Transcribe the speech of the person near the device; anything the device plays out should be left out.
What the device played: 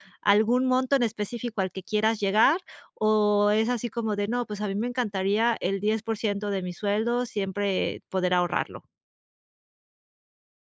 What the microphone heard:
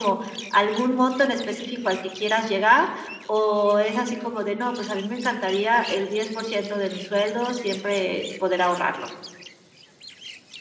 none

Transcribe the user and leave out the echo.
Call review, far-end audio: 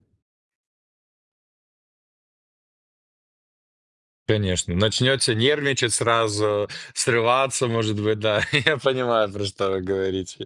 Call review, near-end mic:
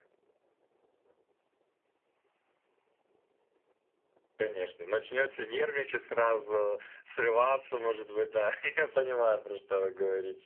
none

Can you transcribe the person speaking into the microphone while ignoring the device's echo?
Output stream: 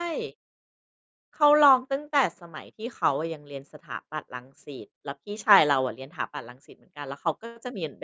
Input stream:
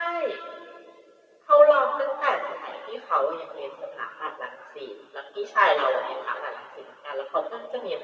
none

